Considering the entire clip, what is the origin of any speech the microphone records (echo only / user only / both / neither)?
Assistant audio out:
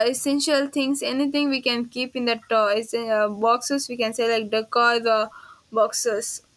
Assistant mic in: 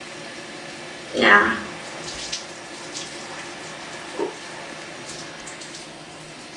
user only